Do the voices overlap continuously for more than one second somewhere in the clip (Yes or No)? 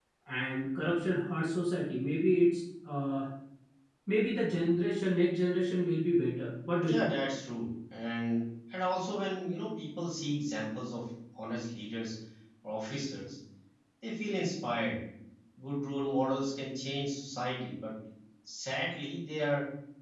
No